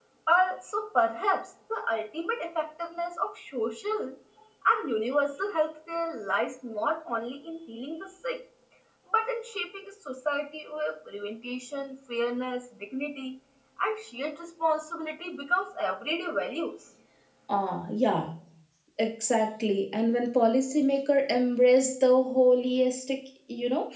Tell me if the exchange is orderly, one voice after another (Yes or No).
Yes